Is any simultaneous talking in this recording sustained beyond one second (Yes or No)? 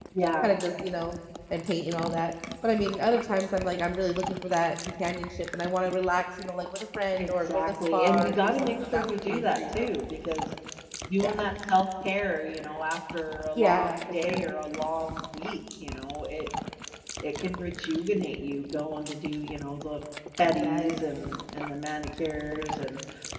Yes